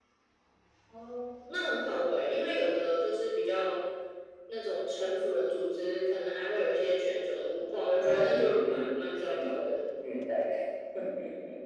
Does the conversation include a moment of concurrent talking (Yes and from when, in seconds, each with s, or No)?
Yes, from 7.6 s